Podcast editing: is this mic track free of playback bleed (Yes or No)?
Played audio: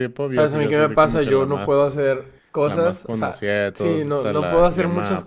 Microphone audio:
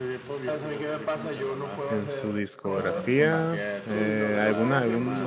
No